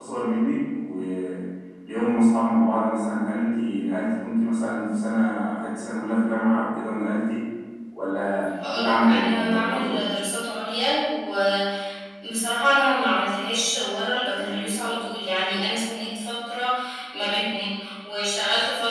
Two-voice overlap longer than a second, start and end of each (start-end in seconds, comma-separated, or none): 8.7-10.0